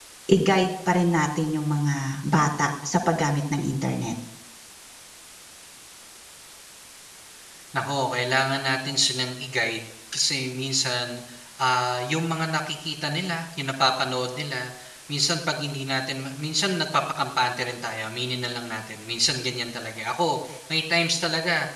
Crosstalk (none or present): none